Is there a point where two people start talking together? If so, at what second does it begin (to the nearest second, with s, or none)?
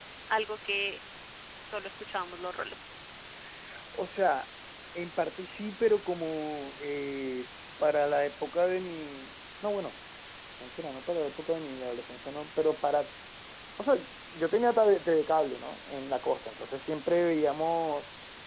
none